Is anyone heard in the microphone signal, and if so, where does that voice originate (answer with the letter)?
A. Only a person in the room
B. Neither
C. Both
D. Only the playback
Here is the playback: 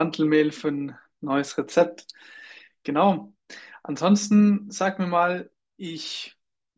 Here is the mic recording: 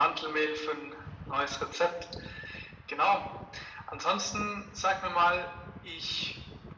D